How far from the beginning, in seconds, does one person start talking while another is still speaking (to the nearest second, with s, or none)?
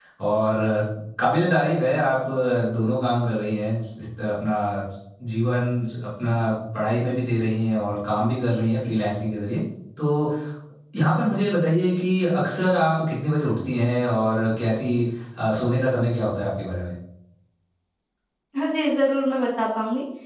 none